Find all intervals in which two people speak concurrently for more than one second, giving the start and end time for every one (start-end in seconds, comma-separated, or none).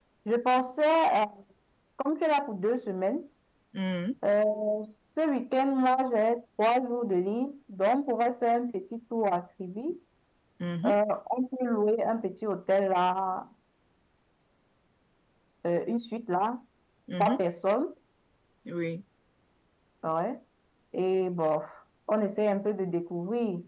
none